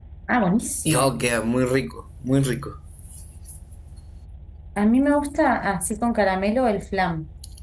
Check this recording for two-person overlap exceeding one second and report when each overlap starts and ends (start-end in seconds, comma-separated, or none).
none